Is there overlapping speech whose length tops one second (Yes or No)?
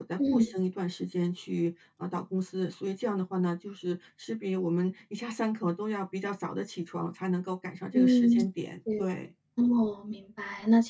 No